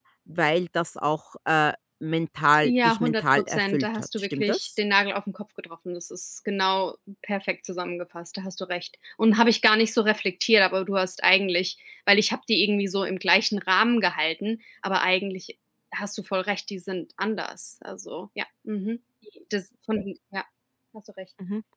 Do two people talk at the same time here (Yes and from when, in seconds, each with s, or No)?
Yes, from 2.6 s